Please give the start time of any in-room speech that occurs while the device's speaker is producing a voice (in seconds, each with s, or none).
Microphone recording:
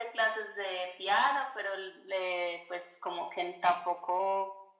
none